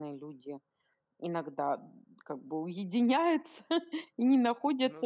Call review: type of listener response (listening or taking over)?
listening